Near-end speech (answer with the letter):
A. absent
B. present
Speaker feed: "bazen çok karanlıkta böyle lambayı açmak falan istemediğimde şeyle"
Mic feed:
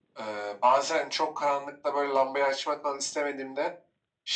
A